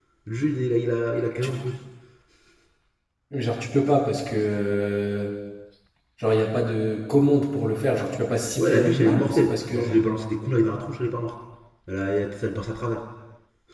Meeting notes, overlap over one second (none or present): present